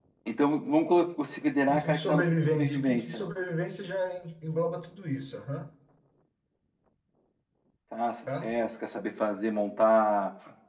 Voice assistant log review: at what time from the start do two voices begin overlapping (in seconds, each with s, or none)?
1.7 s